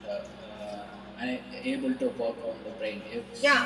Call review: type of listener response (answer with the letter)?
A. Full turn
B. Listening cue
A